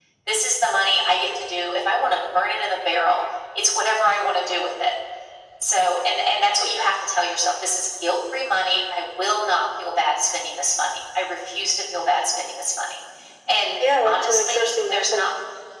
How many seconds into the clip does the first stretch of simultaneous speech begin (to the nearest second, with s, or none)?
14 s